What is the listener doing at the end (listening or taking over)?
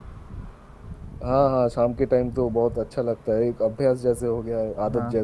taking over